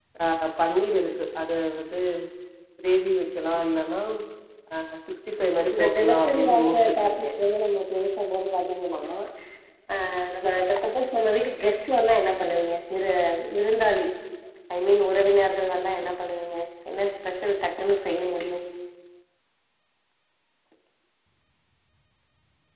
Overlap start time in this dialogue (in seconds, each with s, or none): 5.7 s